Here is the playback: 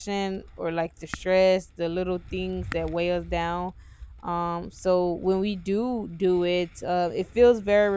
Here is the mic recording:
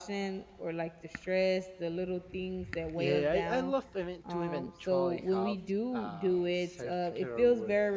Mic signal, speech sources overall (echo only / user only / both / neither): both